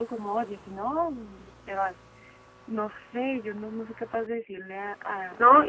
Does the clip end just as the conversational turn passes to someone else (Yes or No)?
Yes